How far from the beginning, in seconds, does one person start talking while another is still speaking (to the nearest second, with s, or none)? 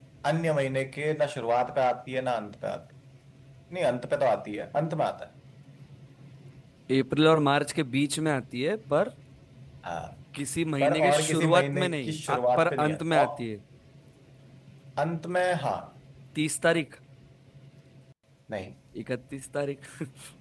11 s